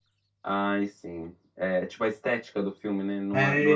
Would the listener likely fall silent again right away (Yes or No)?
No